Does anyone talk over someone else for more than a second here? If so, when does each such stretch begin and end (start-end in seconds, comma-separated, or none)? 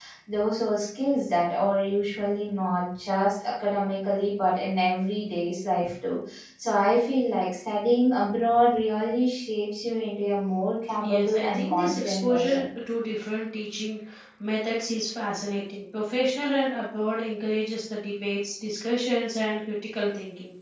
11.0-12.6